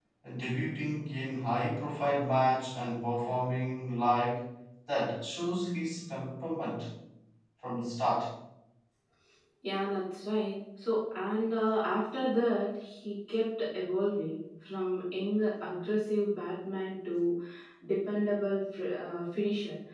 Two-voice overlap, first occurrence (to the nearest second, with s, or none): none